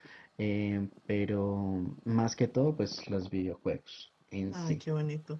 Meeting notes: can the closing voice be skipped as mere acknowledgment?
No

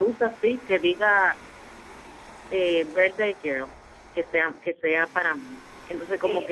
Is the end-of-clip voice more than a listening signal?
Yes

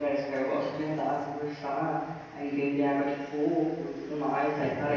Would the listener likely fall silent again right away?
Yes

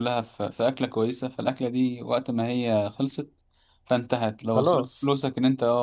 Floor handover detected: No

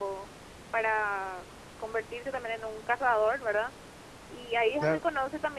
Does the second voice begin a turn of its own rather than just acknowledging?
No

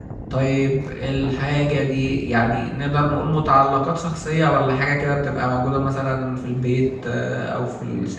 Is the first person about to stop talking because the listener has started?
Yes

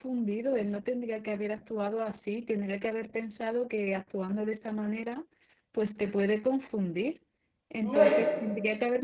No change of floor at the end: Yes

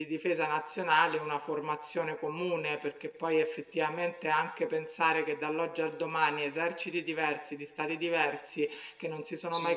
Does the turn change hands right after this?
No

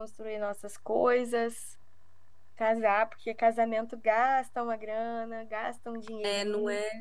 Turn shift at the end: Yes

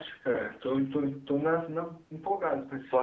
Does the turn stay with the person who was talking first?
No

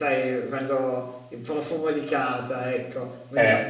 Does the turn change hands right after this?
No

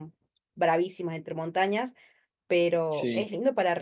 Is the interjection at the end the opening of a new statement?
No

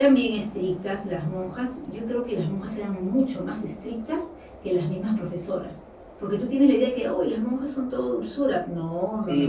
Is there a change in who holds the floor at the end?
Yes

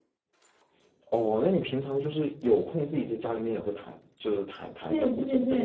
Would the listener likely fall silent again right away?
No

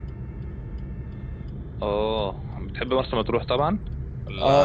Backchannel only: No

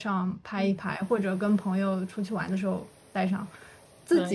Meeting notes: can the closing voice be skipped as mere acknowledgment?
Yes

